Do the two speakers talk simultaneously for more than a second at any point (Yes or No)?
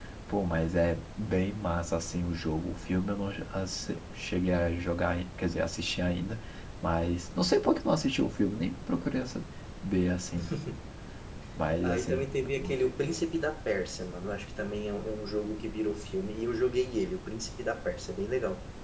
No